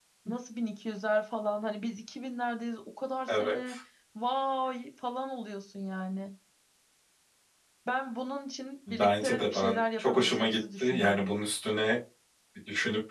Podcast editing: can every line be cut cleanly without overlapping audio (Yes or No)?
No